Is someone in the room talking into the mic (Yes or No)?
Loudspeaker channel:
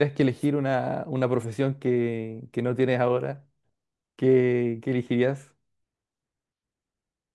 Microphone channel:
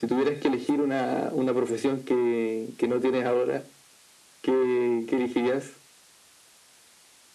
No